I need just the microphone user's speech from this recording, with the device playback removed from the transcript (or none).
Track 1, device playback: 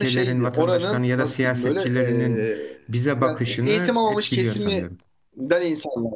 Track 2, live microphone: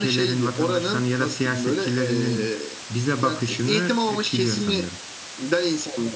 none